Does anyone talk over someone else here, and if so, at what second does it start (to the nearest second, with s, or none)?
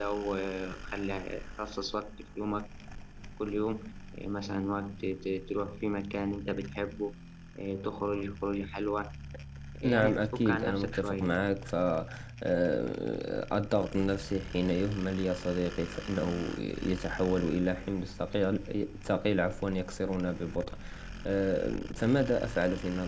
10 s